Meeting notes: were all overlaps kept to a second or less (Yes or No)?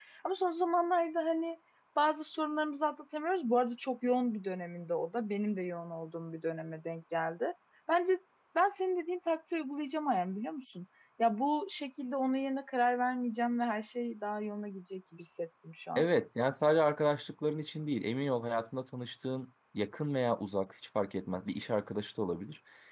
Yes